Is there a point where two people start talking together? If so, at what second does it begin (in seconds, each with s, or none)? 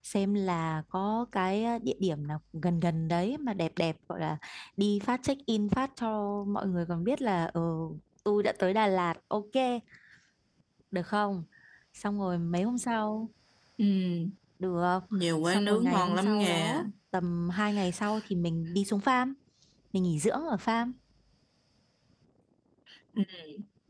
15.4 s